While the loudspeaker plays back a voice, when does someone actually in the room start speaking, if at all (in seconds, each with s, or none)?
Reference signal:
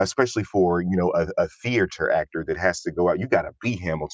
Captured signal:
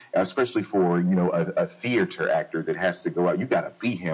none